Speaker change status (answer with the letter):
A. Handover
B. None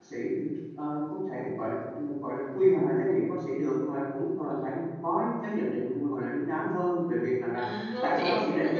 A